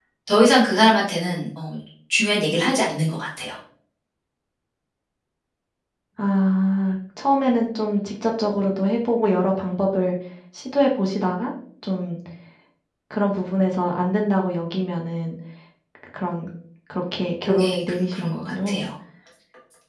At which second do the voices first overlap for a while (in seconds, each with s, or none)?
17.5 s